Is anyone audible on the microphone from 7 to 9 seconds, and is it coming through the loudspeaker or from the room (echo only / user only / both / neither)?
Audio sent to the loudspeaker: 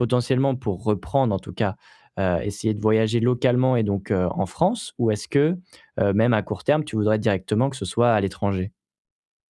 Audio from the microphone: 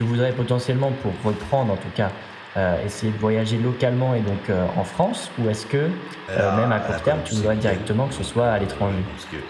both